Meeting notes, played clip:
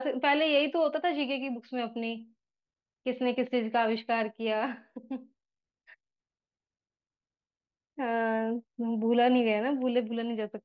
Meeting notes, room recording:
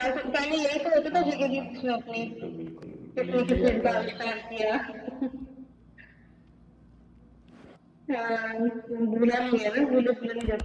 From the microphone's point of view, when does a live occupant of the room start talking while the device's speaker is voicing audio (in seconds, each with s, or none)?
1.1 s